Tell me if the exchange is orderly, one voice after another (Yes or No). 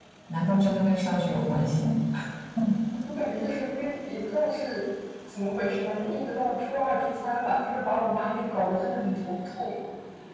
Yes